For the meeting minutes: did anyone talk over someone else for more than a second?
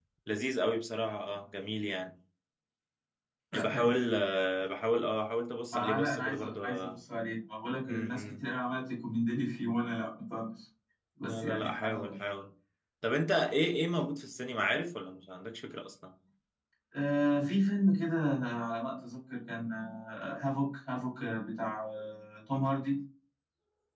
Yes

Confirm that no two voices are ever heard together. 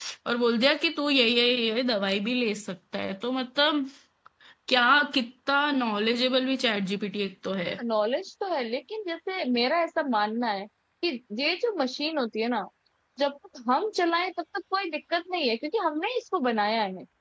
Yes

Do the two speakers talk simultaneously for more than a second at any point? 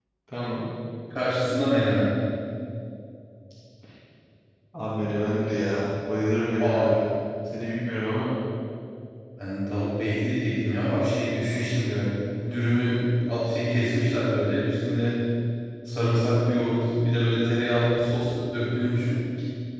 No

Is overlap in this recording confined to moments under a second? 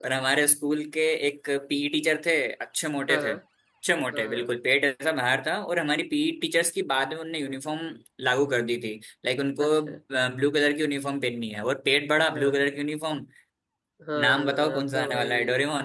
No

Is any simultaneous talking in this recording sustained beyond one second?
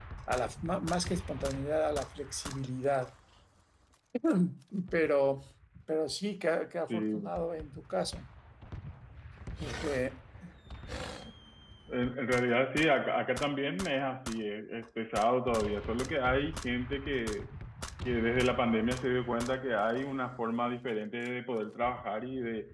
No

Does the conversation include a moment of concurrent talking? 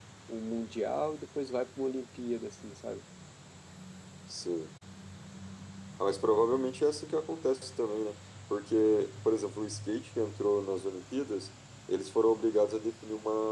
No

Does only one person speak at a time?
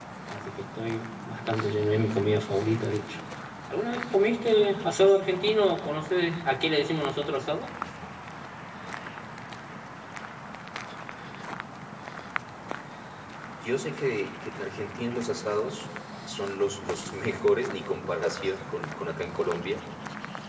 Yes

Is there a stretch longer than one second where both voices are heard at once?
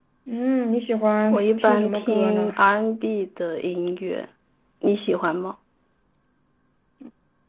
Yes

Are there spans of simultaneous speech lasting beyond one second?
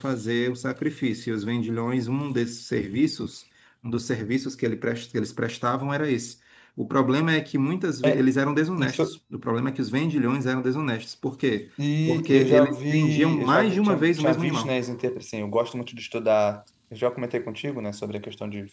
Yes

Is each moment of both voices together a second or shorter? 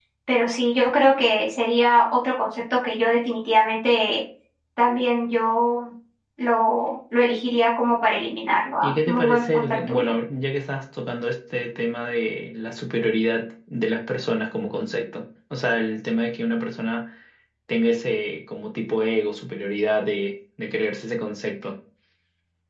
No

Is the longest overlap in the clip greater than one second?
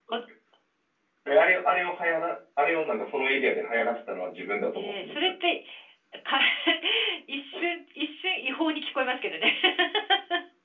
No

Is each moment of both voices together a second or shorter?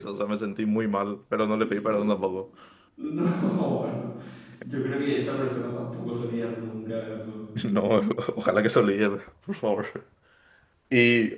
Yes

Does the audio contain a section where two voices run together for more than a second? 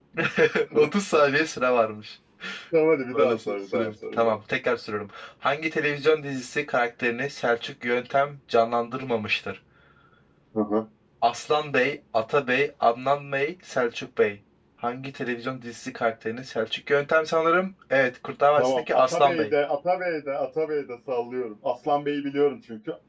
Yes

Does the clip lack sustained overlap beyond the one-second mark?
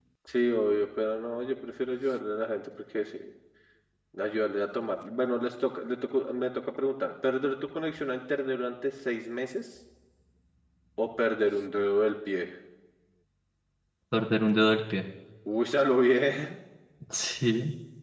Yes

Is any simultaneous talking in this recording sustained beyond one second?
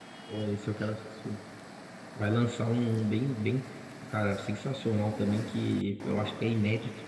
No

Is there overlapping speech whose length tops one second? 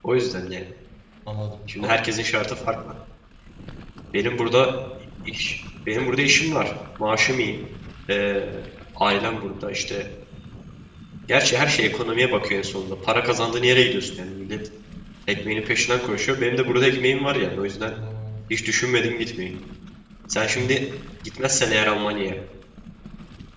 No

